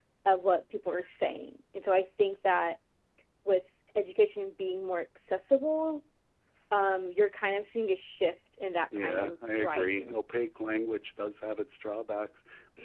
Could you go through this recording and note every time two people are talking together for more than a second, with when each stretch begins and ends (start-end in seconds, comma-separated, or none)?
9.0-10.2